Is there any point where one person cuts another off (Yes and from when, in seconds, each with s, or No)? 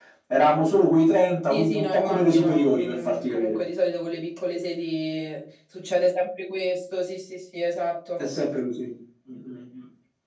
Yes, from 1.5 s